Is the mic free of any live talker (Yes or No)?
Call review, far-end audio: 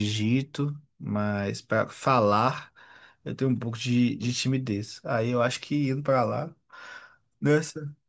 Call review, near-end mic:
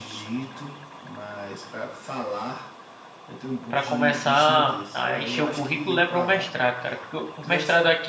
No